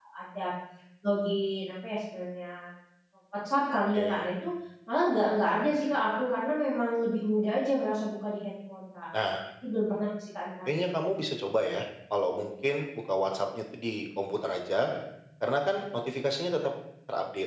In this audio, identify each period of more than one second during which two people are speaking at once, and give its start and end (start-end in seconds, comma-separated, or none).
none